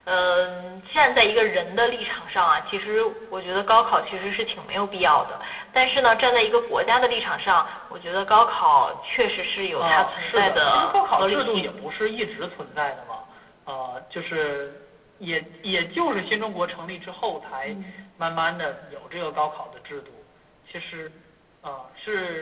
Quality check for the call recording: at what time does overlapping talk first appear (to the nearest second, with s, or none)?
10 s